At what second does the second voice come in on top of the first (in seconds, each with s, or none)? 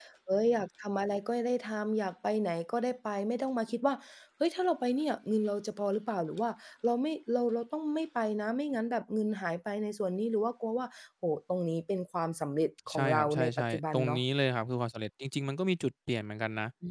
12.9 s